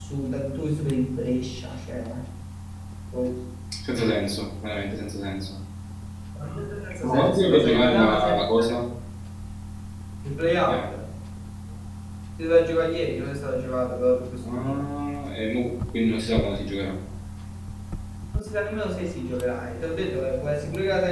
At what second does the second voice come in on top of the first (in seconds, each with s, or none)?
7.0 s